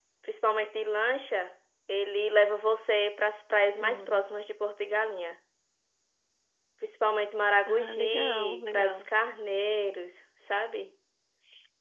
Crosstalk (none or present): present